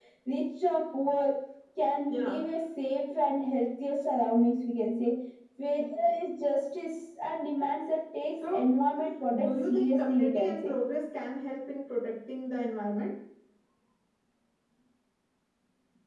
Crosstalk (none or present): present